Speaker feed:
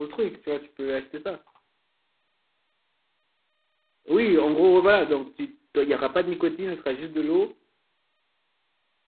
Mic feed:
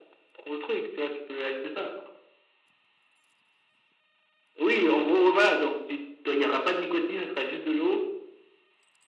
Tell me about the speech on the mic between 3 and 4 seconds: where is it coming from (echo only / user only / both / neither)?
neither